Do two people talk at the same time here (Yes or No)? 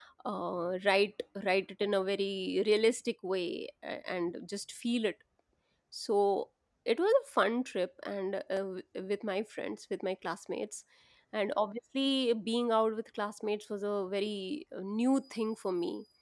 No